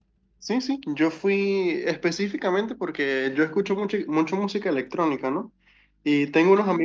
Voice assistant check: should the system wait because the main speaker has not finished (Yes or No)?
Yes